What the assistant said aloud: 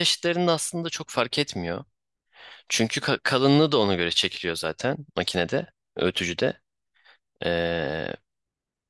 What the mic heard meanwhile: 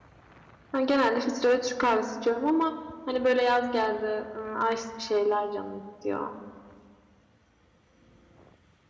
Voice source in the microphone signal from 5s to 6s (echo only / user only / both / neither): user only